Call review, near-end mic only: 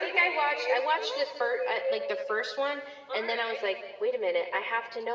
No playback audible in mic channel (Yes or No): No